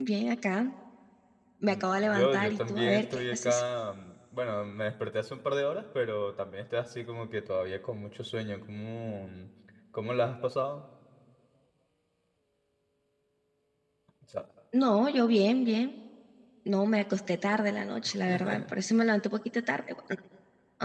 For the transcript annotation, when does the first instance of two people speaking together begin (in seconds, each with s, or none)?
1.7 s